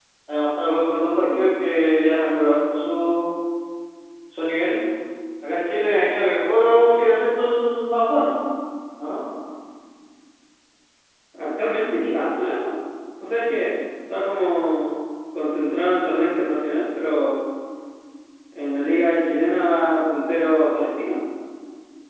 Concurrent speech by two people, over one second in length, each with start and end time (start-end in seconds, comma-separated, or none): none